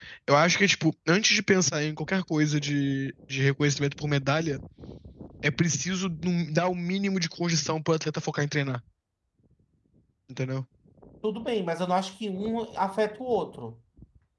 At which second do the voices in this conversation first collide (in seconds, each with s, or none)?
none